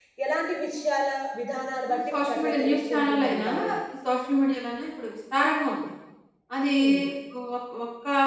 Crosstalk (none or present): present